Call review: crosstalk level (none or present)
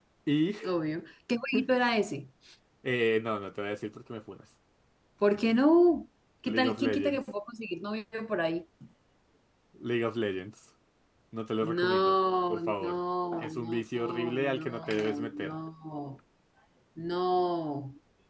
present